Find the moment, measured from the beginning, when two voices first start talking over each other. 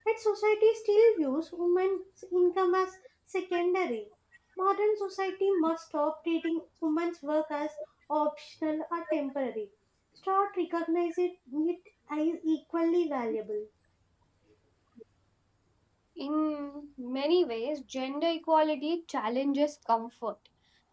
none

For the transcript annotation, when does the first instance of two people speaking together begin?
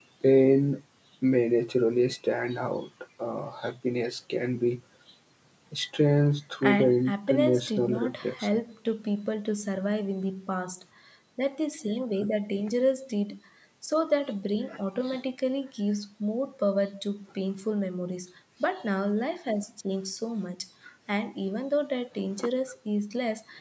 7 s

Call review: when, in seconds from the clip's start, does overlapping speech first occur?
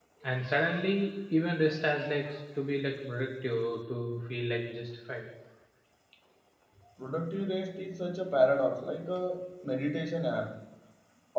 none

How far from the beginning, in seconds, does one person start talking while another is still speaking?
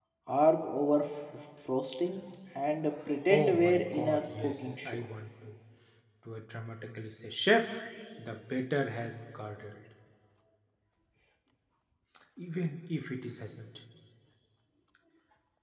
3 s

